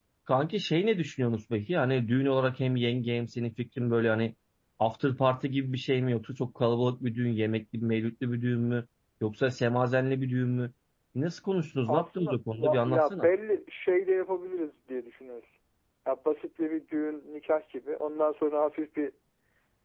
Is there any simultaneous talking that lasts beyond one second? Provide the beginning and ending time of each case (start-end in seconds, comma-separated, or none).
11.9-13.3